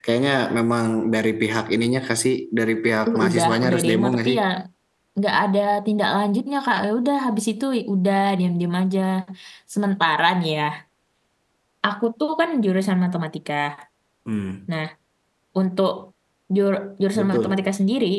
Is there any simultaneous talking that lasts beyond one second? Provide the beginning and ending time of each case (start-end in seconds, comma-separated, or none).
3.1-4.4